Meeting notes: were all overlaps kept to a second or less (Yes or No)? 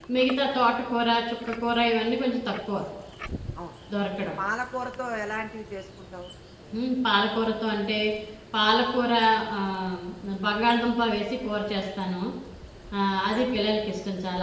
Yes